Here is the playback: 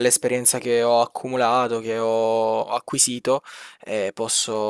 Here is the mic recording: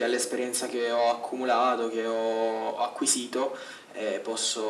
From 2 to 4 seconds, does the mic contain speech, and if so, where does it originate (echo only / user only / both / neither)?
echo only